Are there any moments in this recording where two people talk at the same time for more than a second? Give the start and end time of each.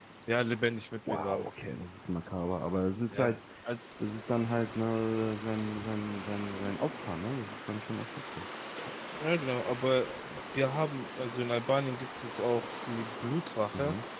none

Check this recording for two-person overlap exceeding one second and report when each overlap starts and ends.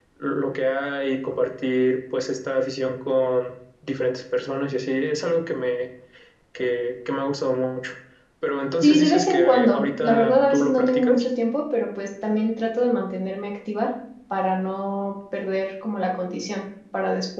8.8-11.2

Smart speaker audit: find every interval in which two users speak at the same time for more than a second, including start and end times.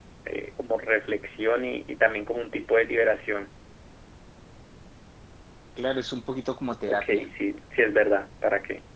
none

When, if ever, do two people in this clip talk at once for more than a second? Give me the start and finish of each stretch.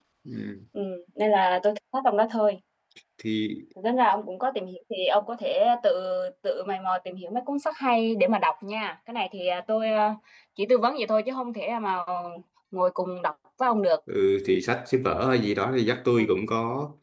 none

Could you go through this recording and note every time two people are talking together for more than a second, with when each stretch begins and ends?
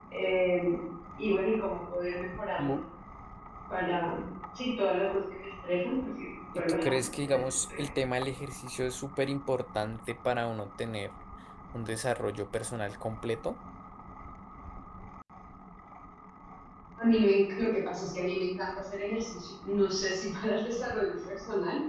6.6-7.9

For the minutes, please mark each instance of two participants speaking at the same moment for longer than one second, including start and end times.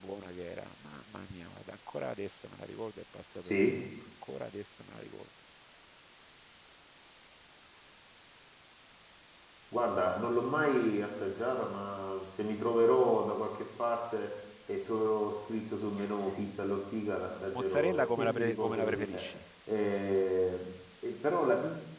17.5-19.2

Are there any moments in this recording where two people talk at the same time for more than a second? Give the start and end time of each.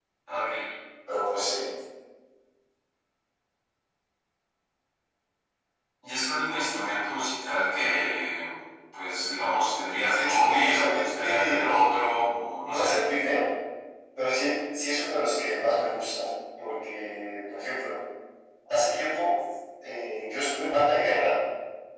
10.1-12.0

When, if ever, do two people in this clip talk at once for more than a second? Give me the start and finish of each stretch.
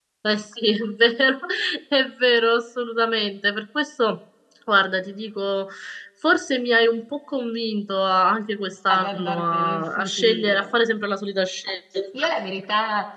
8.9-10.7

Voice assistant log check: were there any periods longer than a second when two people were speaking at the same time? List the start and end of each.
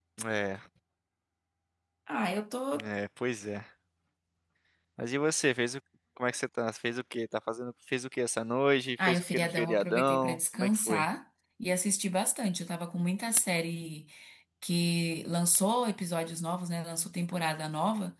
9.1-11.1

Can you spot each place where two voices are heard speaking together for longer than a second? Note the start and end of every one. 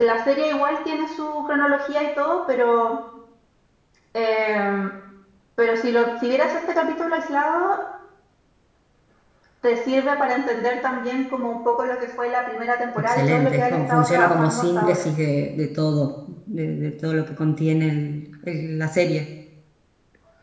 13.0-15.1

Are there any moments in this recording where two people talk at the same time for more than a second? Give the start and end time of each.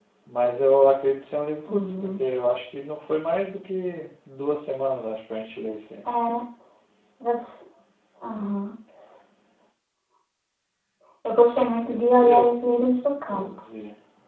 11.7-13.4

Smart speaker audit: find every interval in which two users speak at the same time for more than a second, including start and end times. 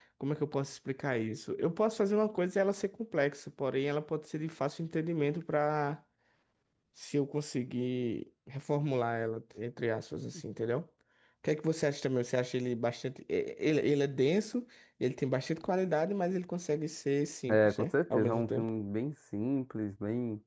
17.5-18.7

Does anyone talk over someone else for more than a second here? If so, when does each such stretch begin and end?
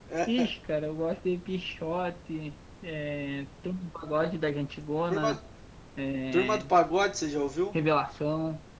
none

